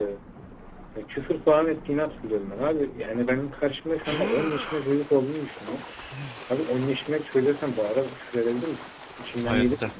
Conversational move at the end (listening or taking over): taking over